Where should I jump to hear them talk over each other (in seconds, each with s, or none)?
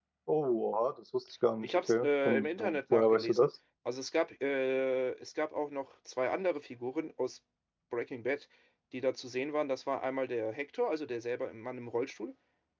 1.6 s